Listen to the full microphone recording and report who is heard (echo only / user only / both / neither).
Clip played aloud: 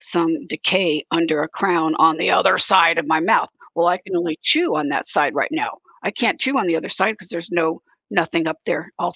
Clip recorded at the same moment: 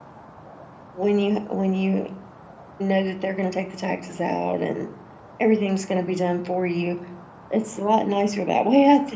user only